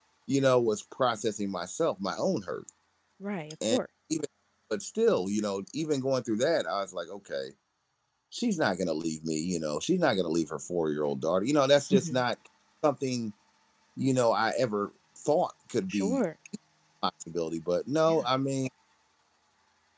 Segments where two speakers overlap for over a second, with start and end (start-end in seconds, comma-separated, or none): none